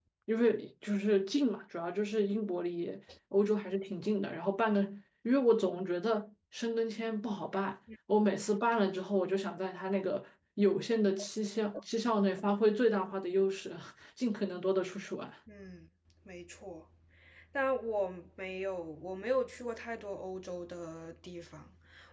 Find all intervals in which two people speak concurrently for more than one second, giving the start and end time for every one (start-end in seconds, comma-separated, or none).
none